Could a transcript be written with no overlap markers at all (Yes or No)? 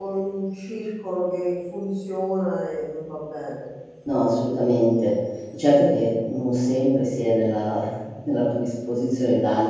Yes